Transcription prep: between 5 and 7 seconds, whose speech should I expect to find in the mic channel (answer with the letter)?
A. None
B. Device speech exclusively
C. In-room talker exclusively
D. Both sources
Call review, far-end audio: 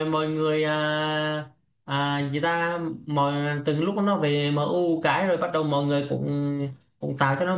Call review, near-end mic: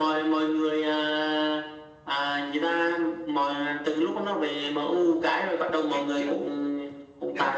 D